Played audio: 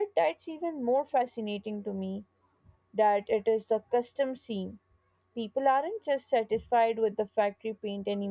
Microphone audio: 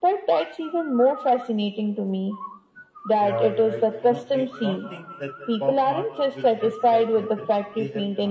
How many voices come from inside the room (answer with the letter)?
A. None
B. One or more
B